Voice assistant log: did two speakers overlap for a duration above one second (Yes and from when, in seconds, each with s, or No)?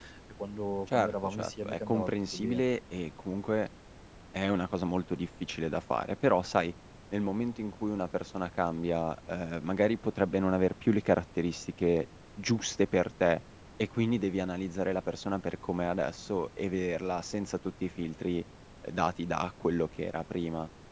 Yes, from 0.9 s